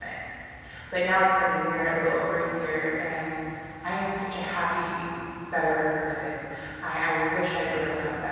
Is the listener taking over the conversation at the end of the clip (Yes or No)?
No